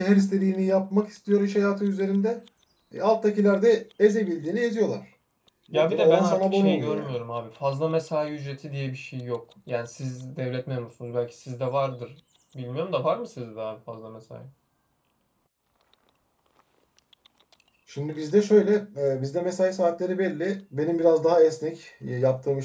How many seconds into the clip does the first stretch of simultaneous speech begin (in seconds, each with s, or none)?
5.7 s